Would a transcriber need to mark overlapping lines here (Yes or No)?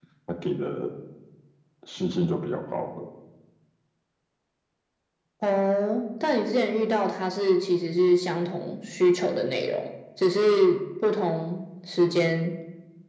No